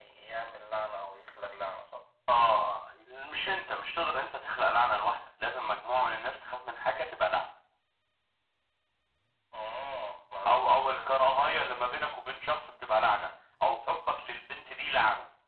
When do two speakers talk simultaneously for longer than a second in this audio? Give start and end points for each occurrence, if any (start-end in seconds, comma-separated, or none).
10.5-11.9